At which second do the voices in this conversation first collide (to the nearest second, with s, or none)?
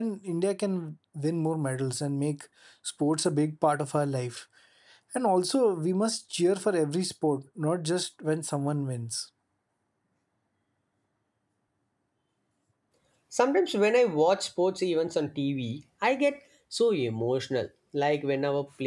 none